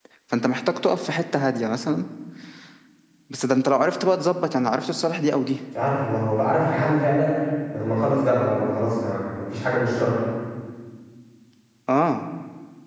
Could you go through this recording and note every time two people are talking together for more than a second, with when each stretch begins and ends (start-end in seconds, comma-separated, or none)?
none